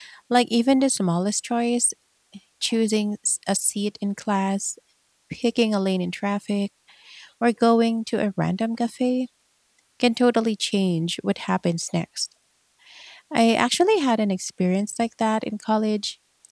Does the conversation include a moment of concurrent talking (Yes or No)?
No